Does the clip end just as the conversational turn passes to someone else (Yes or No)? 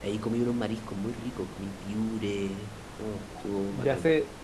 Yes